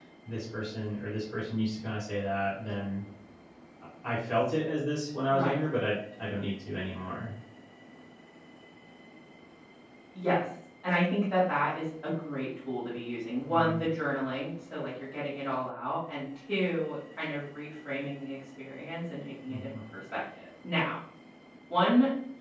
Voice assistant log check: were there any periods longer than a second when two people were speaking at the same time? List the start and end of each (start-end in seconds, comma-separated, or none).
none